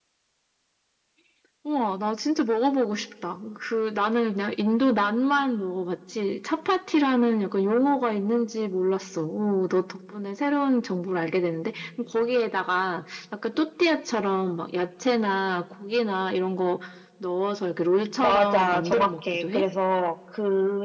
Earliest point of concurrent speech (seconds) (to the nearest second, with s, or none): 18 s